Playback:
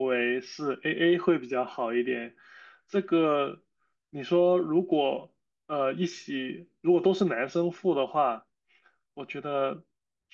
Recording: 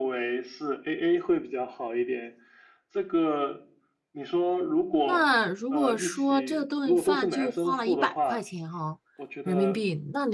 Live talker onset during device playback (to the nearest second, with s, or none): 5 s